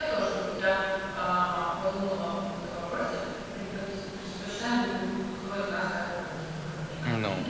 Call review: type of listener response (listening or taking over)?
listening